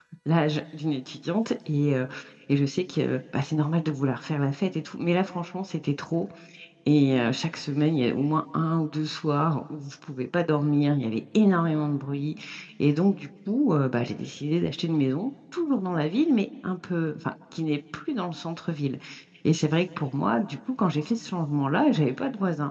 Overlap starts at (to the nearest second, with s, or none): none